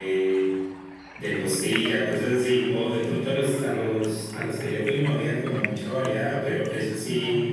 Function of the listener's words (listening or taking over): listening